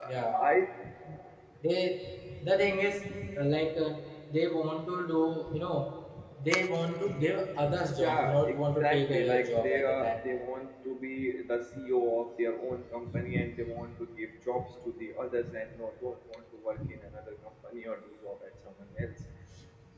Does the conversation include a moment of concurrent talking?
Yes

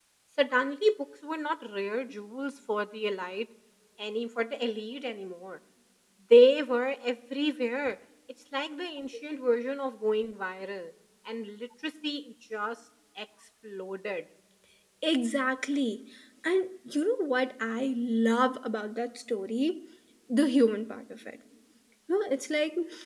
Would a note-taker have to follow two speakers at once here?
No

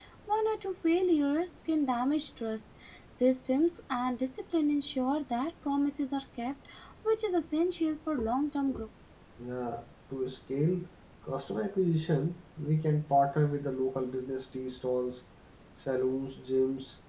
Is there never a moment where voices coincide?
Yes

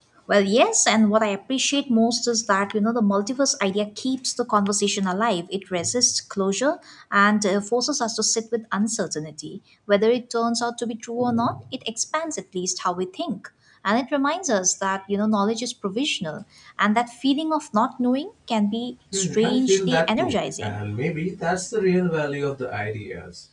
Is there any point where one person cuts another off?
Yes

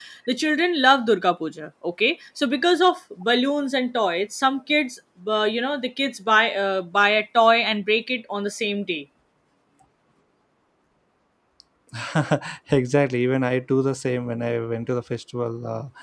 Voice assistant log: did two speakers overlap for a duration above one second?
No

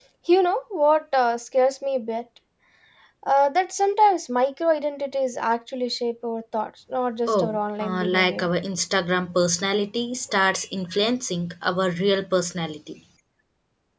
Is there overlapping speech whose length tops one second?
Yes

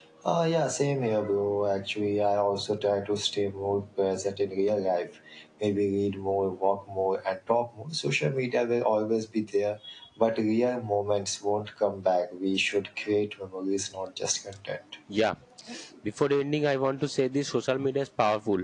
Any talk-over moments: No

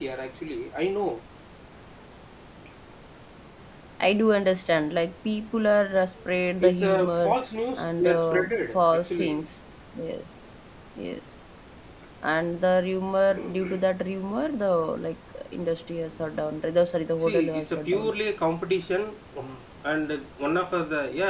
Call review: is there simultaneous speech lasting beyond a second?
Yes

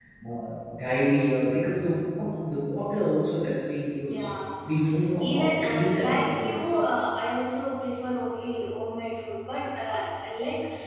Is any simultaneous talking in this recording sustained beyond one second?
Yes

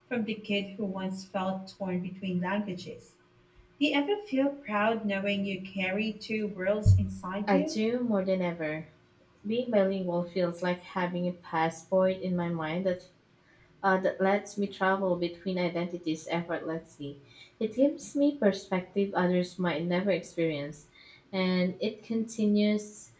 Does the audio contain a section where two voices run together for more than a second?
No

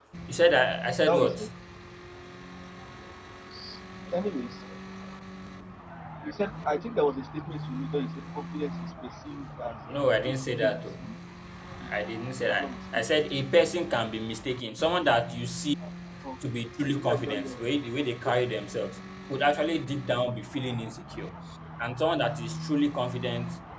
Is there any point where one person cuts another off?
Yes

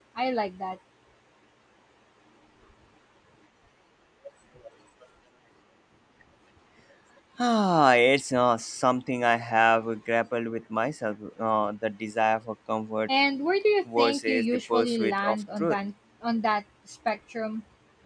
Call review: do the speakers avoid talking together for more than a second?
No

